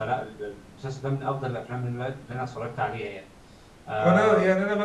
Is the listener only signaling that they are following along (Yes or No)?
No